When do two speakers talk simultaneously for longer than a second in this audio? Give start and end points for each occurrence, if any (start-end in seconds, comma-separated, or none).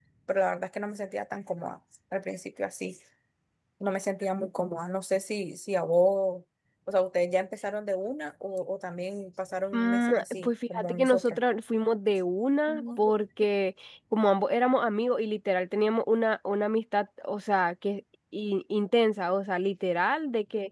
9.7-11.4